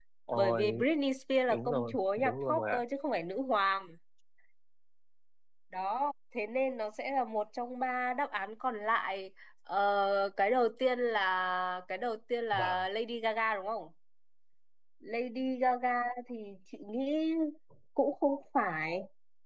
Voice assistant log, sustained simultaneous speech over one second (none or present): present